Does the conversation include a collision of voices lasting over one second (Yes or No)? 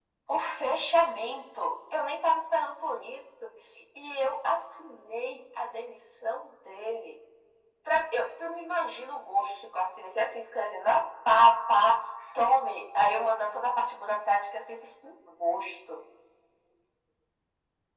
No